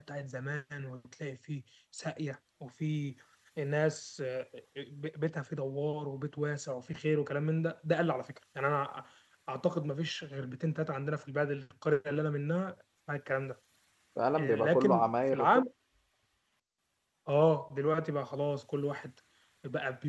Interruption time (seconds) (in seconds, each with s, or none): 14.4 s